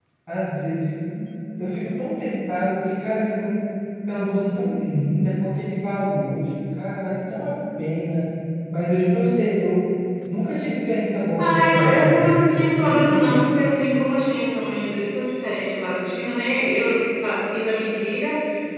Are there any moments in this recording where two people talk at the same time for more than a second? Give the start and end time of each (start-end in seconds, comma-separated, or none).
11.4-13.5